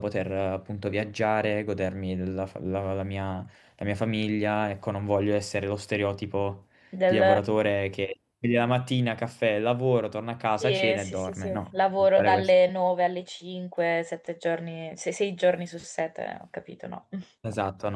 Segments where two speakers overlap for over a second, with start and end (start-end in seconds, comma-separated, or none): 10.6-12.5